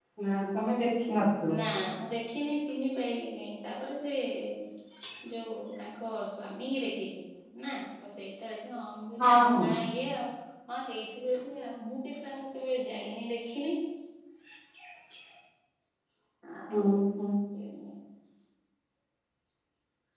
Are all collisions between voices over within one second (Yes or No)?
Yes